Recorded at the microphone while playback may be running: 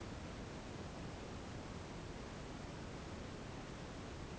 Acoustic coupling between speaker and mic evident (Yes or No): No